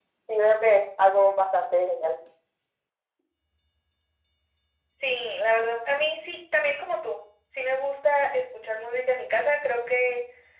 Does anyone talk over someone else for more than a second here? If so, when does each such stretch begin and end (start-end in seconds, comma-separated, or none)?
none